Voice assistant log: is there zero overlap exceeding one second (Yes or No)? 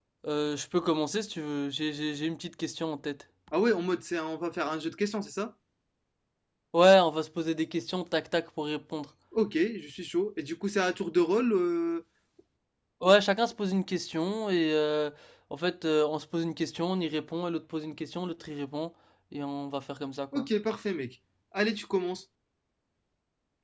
Yes